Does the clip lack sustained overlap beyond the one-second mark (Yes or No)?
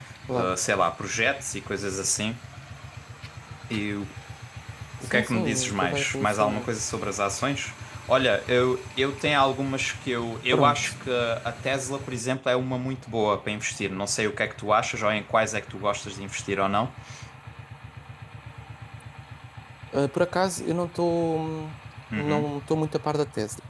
No